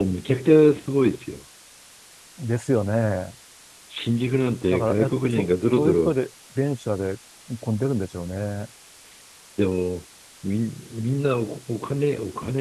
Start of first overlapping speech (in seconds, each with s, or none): 4.7 s